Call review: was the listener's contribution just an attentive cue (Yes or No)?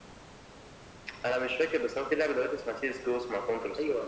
No